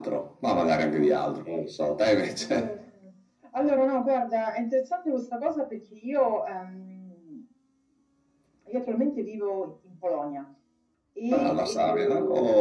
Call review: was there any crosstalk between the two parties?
Yes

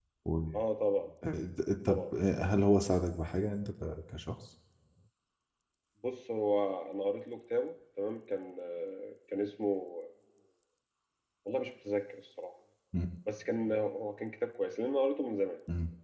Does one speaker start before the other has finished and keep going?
No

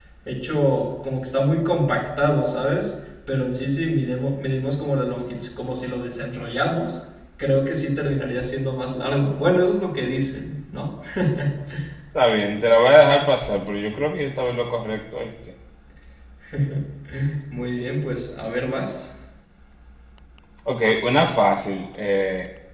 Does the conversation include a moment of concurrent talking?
No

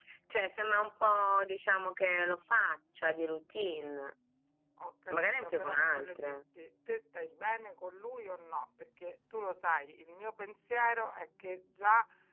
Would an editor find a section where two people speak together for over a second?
Yes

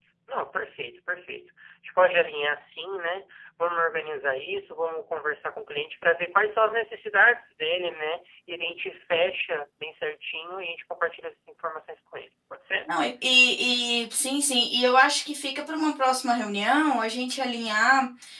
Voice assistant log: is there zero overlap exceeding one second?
Yes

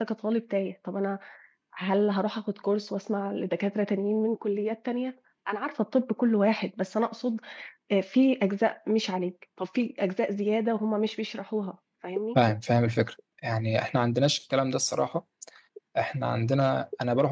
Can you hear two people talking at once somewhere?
No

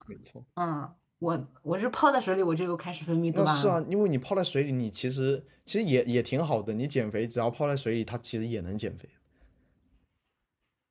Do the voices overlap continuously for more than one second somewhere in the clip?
No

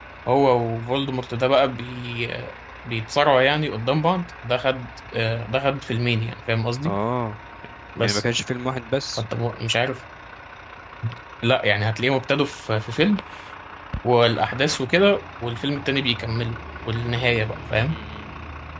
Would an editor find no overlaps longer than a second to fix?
Yes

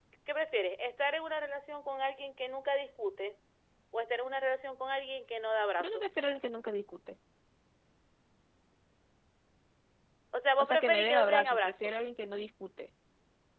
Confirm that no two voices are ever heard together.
No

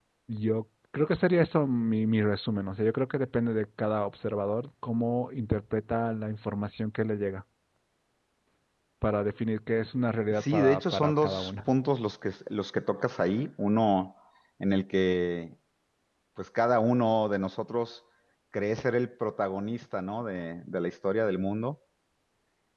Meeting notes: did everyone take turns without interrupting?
No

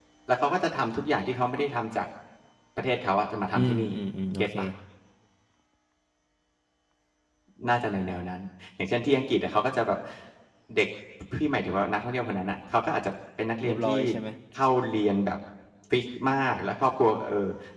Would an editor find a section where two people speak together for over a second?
No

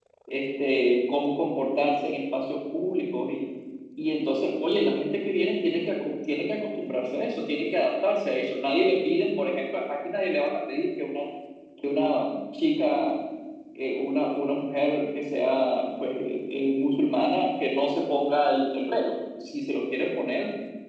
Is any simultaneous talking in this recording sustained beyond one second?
No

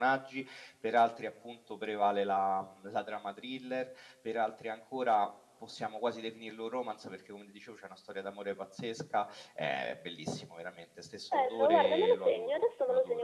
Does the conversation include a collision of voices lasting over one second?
Yes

